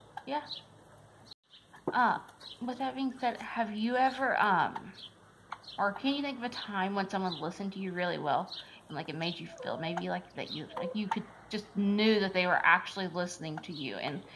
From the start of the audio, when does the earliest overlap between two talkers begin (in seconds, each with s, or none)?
none